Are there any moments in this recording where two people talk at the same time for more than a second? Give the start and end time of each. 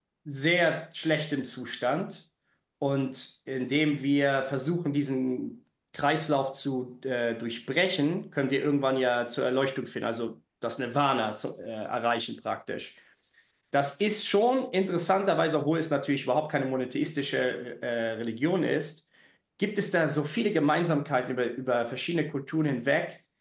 none

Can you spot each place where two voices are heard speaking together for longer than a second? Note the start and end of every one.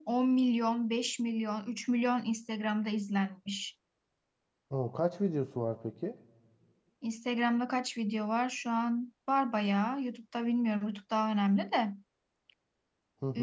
none

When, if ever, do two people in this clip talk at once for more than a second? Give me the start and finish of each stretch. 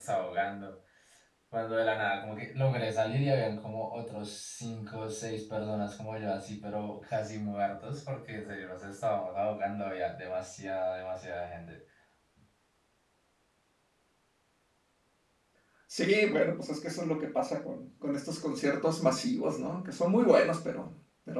none

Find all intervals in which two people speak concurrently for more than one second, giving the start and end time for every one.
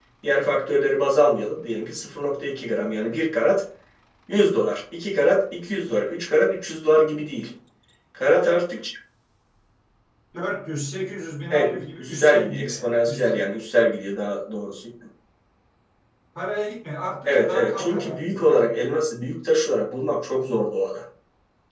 11.5-13.4, 17.3-18.7

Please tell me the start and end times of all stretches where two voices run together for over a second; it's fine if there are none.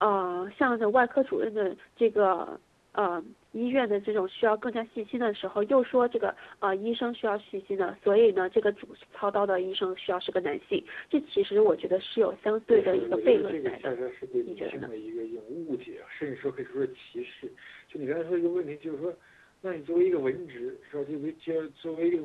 12.7-13.9

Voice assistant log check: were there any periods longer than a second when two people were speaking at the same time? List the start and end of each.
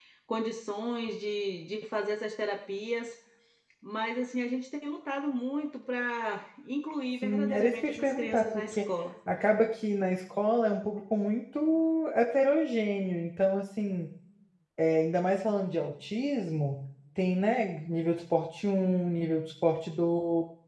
7.2-8.9

